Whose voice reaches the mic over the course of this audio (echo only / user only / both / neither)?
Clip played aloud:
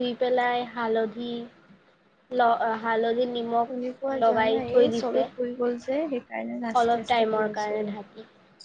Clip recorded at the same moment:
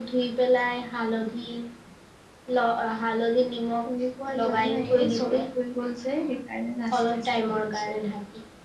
echo only